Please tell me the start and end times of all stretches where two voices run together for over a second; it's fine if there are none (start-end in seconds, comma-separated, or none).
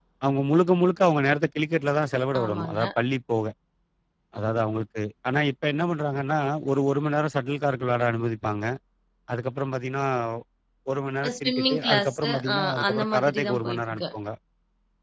11.4-14.0